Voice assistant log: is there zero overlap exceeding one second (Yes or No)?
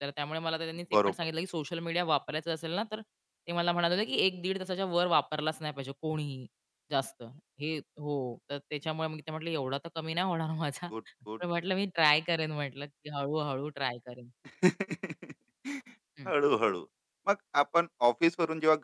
Yes